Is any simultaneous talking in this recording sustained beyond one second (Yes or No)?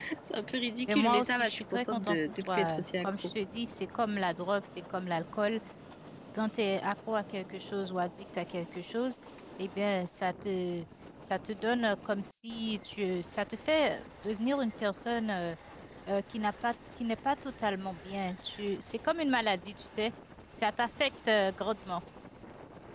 Yes